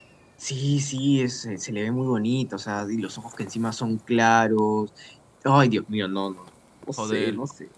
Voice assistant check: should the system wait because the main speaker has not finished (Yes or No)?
No